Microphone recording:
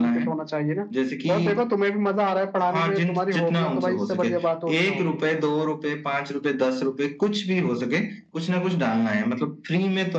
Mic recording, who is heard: echo only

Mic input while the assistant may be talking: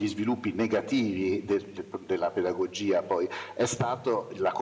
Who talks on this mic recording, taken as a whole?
echo only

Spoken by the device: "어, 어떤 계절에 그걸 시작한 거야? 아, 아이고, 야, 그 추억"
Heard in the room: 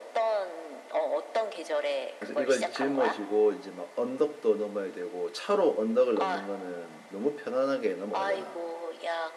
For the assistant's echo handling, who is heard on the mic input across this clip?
both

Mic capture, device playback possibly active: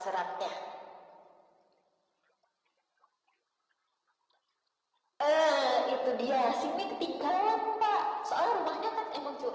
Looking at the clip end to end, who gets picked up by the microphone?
echo only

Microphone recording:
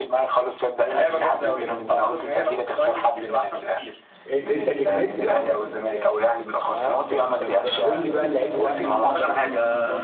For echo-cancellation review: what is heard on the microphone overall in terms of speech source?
both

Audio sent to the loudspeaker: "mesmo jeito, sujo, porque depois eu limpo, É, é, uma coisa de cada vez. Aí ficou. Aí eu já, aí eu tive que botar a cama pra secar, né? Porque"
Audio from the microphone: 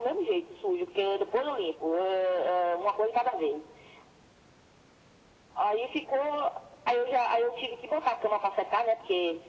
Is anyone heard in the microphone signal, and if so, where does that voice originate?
echo only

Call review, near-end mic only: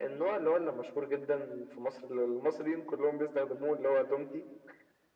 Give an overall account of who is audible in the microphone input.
echo only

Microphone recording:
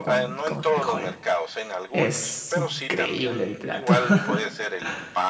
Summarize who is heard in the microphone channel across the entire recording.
both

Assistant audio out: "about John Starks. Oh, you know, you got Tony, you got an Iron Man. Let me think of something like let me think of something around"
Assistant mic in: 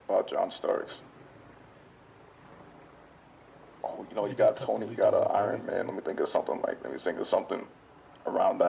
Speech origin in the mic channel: both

